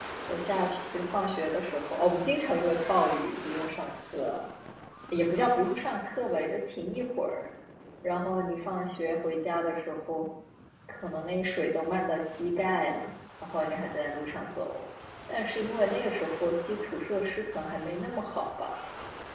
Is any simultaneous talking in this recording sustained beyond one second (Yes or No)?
No